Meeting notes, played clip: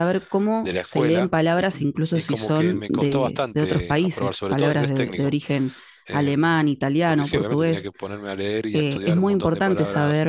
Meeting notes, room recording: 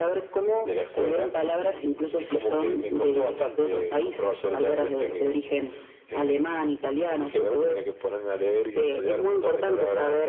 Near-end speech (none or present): none